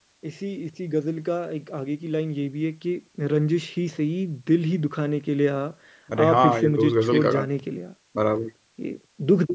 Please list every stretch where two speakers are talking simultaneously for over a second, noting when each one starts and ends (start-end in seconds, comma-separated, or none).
6.2-7.5